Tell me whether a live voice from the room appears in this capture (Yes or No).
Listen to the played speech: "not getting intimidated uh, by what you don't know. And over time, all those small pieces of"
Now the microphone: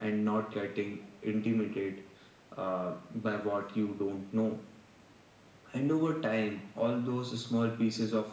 No